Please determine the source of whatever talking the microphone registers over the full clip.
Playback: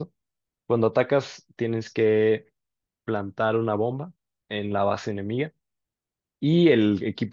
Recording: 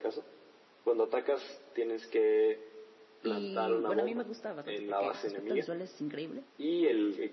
both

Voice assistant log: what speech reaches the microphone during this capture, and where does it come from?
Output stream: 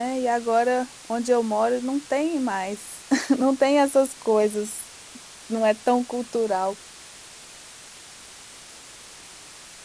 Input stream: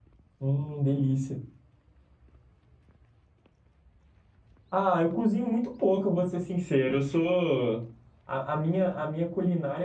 user only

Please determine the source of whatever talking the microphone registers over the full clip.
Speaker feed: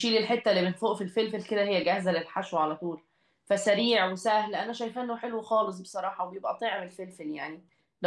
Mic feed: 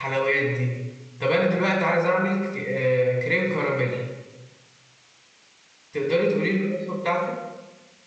user only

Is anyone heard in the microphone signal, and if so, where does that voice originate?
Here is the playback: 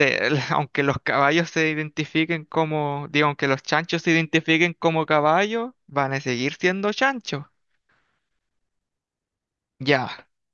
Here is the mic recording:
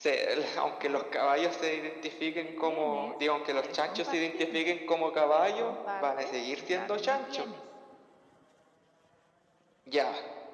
both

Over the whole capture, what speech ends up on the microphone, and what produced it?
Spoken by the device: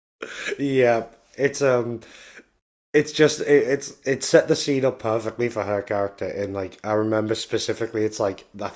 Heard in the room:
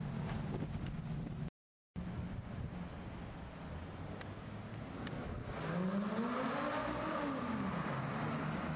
neither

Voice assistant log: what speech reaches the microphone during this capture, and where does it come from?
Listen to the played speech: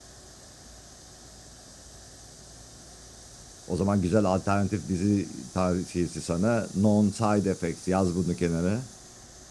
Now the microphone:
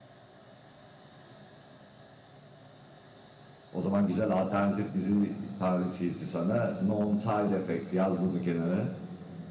echo only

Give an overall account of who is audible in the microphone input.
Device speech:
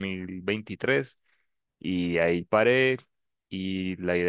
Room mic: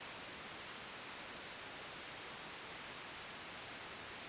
neither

